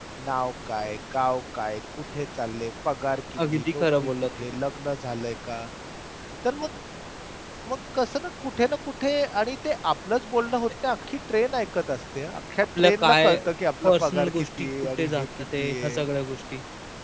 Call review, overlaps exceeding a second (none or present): present